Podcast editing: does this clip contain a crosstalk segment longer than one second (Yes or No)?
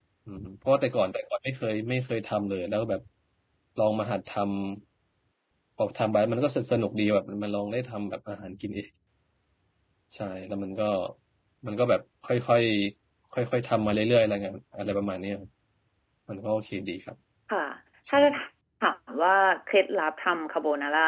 No